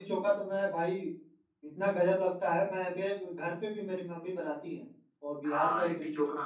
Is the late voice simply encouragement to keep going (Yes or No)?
No